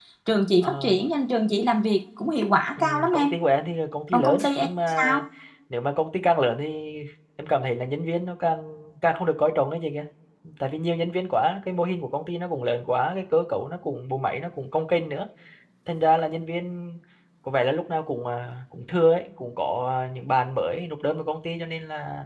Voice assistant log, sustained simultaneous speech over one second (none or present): none